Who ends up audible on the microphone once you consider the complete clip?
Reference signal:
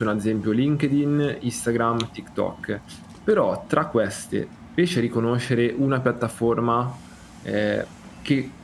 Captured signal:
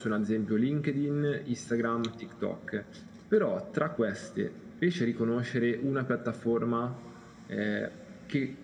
echo only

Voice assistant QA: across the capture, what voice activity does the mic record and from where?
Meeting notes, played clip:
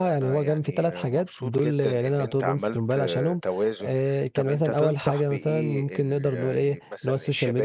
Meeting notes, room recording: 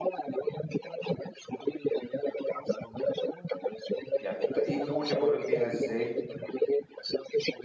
both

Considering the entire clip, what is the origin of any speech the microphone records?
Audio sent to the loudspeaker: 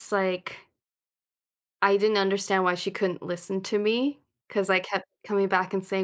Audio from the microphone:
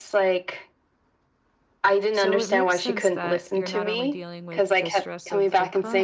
both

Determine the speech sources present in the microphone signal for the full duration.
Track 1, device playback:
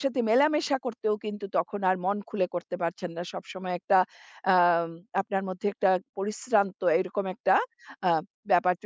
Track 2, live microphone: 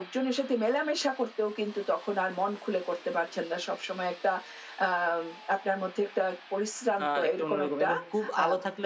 both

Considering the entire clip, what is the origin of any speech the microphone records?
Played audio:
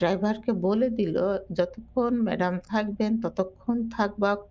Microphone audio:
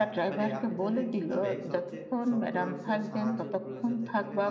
both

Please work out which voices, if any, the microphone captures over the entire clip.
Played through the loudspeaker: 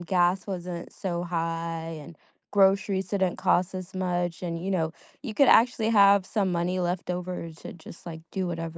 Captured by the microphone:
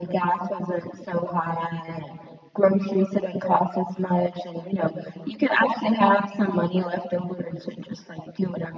echo only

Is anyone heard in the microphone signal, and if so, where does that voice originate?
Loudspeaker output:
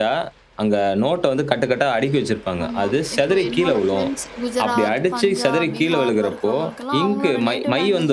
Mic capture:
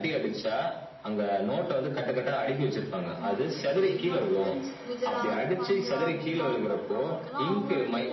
echo only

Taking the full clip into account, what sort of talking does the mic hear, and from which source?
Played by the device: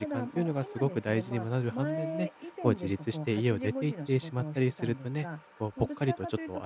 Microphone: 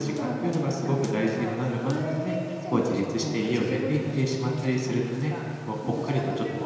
echo only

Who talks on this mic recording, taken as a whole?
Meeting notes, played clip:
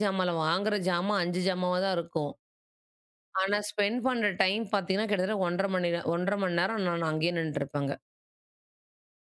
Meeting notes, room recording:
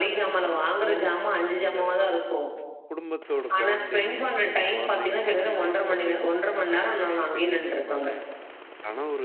both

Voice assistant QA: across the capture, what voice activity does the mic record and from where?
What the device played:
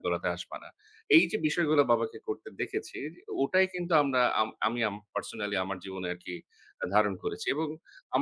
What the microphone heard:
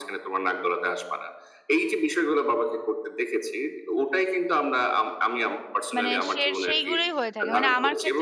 both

